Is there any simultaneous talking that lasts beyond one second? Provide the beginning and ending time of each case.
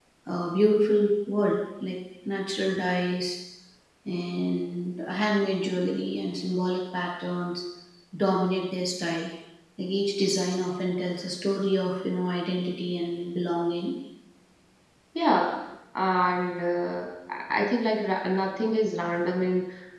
none

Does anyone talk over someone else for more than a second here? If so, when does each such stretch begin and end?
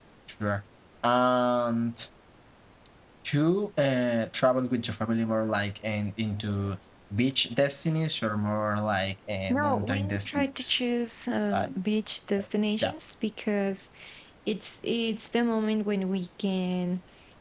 9.5-10.7

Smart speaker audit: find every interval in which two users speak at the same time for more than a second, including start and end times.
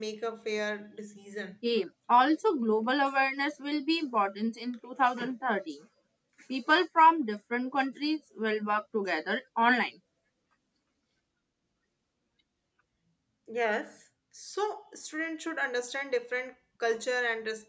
none

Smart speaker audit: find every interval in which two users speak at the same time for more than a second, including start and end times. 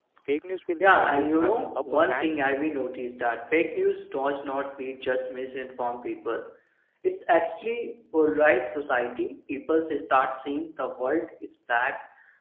0.8-2.4

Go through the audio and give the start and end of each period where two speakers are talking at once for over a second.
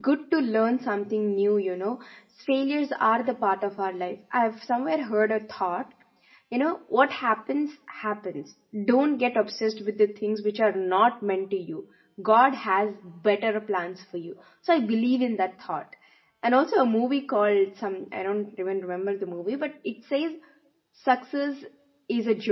none

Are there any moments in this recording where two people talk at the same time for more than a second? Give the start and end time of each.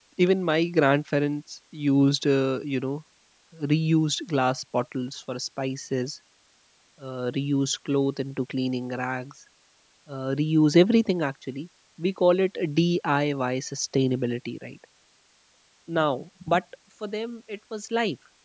none

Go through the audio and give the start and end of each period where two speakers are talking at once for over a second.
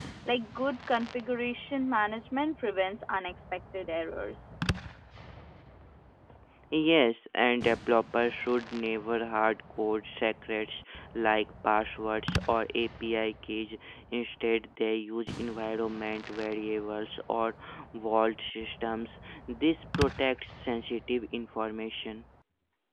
none

